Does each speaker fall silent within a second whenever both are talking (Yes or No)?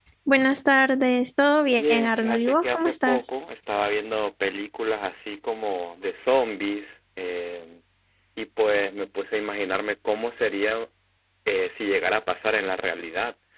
No